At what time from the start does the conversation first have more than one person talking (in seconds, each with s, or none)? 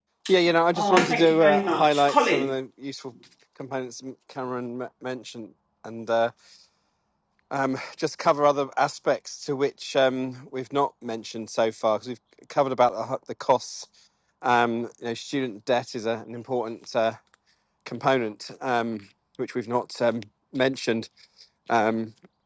0.7 s